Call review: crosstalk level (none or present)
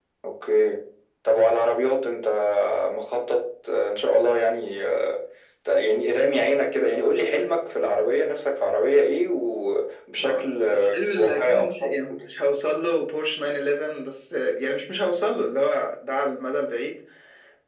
present